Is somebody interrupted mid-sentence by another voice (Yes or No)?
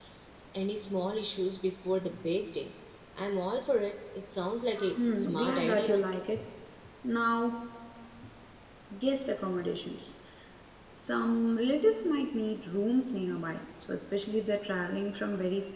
Yes